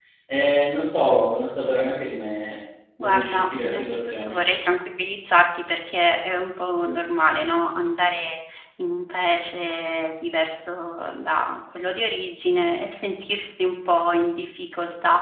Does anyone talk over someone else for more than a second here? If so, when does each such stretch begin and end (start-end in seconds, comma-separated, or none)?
3.0-4.4